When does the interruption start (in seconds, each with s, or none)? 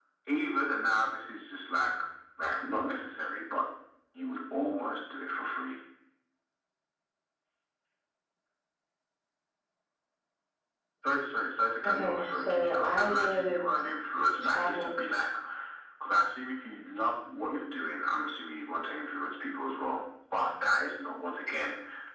11.8 s